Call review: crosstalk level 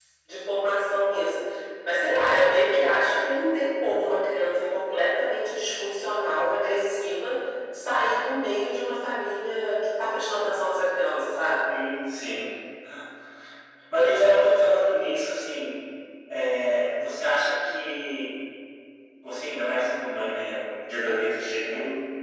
none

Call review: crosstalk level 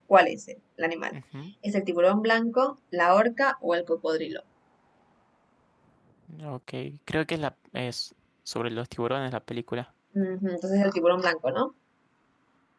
none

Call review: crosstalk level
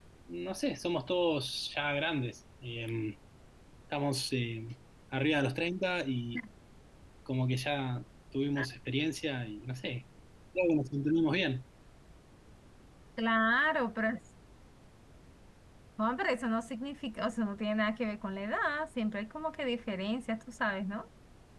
none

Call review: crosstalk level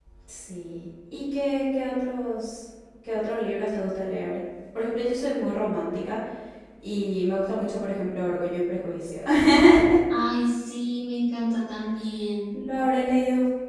none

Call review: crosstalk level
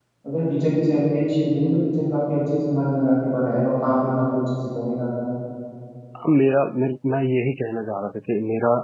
none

